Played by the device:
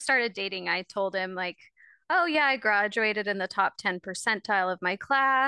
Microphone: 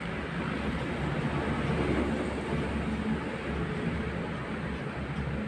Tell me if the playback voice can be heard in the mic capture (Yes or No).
No